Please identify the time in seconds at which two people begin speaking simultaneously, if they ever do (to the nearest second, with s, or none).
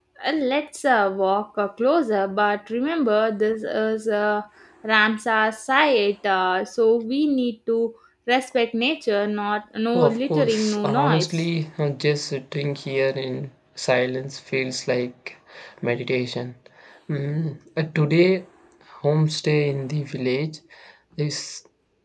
10 s